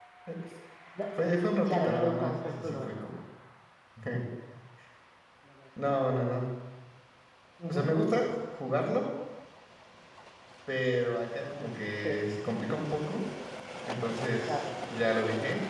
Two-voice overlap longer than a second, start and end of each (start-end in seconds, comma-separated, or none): 1.6-2.9